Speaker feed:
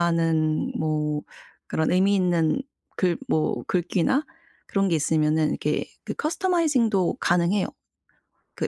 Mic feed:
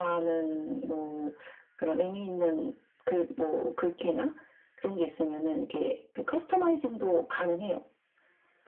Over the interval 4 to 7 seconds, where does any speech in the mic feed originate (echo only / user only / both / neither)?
echo only